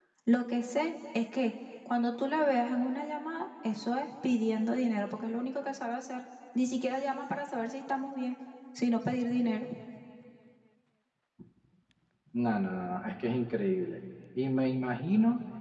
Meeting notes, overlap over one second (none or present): none